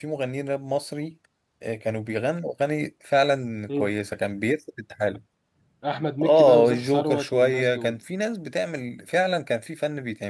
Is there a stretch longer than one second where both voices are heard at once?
Yes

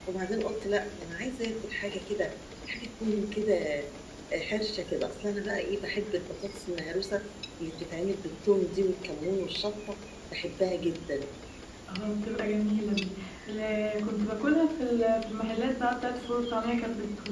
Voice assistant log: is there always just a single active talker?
Yes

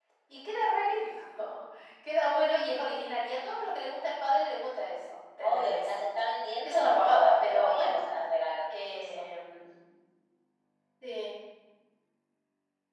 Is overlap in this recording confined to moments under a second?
No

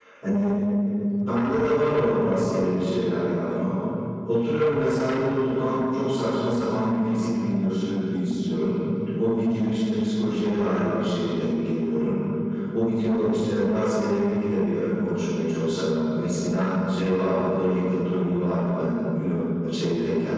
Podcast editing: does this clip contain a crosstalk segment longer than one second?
No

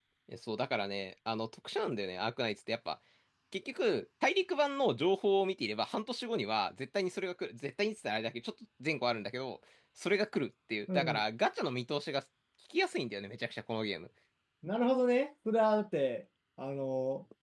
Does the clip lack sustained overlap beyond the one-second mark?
Yes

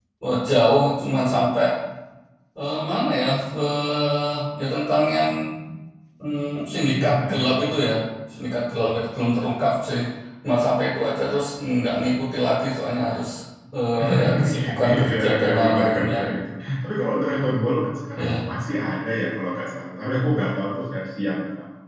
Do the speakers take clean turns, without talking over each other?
No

